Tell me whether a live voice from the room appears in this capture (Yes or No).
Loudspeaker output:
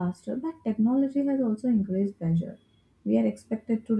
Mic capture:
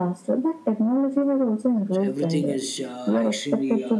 Yes